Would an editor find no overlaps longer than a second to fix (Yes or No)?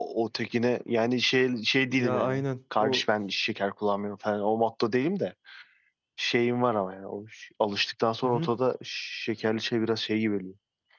Yes